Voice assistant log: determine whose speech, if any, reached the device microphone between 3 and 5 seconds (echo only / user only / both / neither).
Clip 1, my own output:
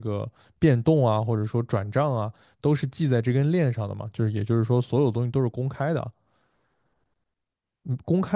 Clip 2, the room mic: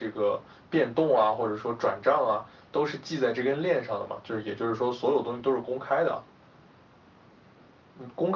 echo only